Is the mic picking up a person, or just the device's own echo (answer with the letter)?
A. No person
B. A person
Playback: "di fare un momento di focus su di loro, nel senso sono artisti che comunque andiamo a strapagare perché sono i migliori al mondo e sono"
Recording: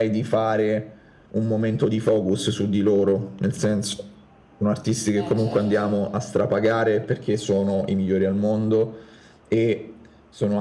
B